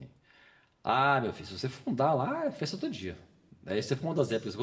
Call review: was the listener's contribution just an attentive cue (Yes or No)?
Yes